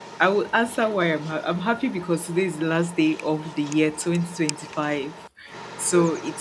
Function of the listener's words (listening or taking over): listening